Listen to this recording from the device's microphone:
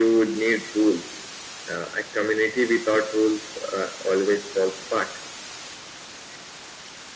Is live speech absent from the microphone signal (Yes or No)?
Yes